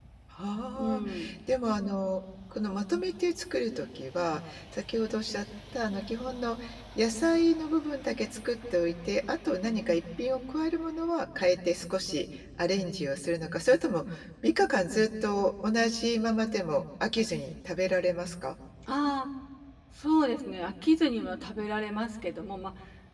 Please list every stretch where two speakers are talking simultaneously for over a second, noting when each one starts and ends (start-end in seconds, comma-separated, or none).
none